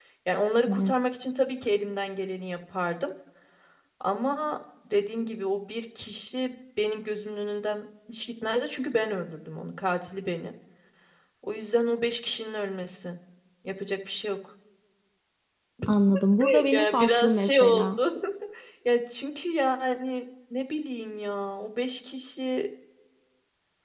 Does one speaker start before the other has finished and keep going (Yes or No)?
Yes